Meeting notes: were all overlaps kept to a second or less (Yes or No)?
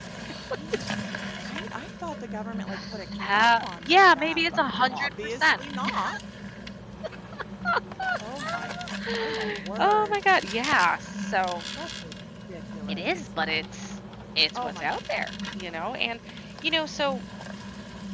No